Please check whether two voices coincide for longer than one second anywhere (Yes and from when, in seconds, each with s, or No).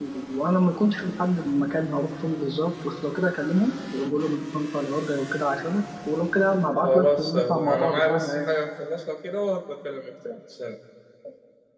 Yes, from 6.8 s